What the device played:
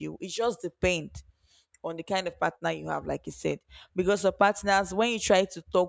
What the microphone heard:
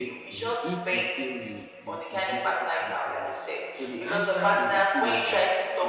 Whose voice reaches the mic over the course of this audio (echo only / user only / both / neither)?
both